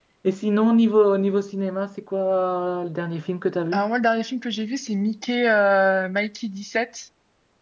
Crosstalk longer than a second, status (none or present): none